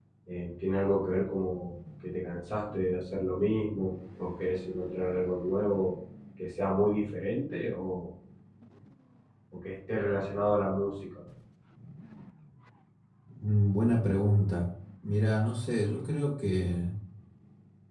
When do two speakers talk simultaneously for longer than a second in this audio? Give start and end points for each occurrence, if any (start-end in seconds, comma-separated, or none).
none